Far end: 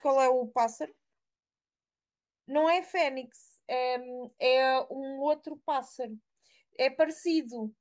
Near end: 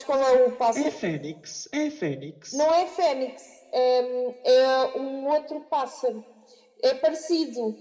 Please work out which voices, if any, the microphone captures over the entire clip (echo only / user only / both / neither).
both